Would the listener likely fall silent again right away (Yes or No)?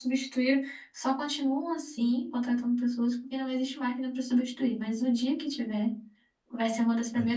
Yes